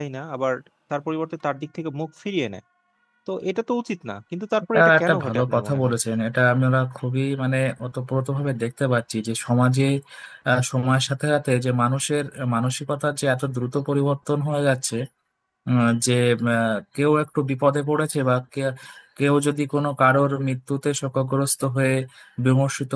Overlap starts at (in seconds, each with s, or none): 4.7 s